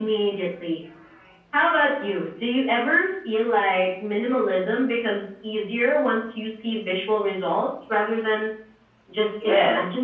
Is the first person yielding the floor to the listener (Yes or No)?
Yes